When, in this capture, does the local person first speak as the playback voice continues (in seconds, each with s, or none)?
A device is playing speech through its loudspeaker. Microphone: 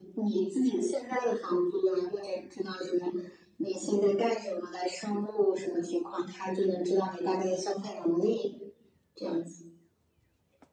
none